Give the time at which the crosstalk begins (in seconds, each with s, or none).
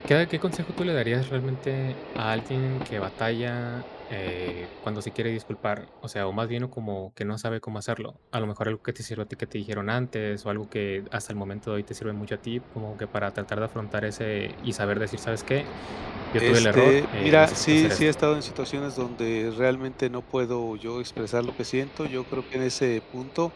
16.4 s